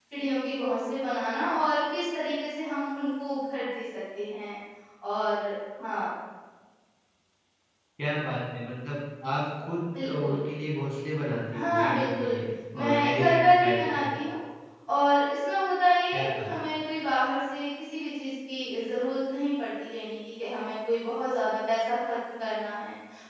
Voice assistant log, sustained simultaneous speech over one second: present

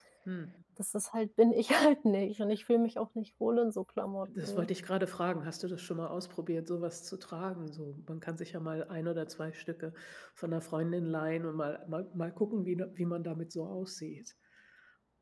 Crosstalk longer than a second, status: none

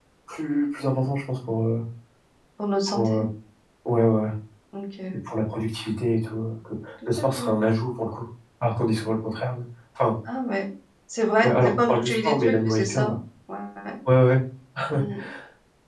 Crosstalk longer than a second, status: present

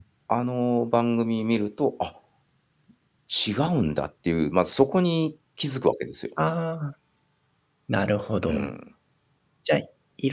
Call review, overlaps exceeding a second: none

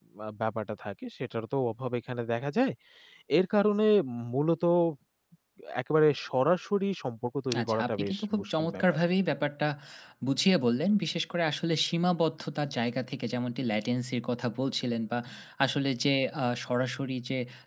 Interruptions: present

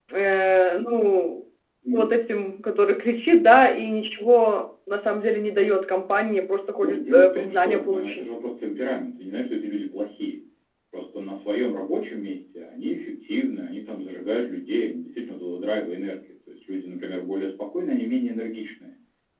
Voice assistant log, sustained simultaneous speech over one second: present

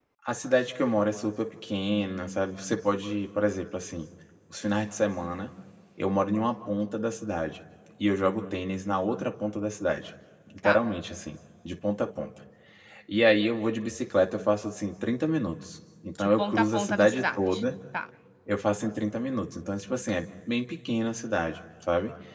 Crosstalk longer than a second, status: present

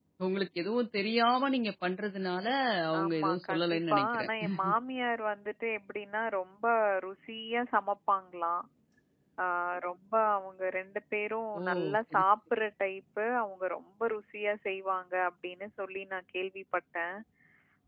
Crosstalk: present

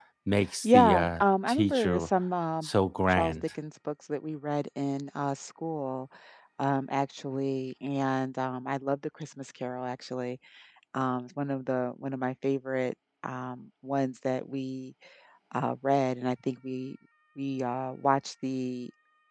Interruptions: present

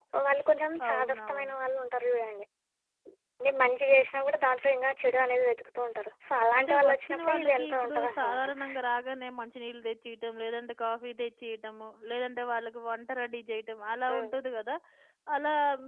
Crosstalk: present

